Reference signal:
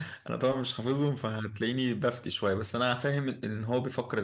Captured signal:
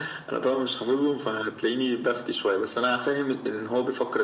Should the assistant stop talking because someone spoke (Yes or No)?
No